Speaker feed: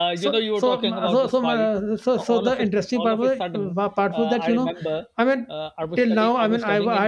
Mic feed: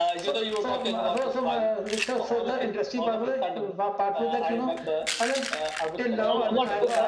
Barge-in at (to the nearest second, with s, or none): 6 s